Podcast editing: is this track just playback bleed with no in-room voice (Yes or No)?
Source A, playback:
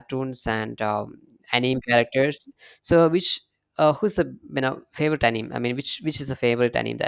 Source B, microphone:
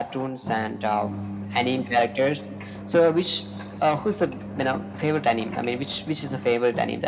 Yes